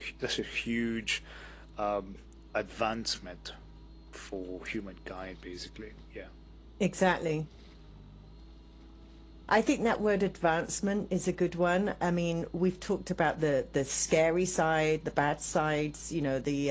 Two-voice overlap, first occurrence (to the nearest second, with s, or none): none